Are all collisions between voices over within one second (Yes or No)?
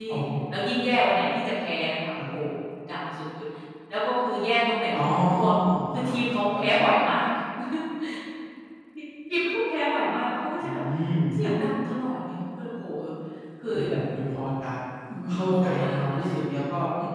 No